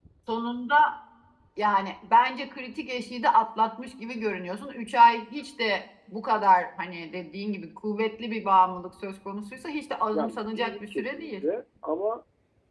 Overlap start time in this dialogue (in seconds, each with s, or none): 10.1 s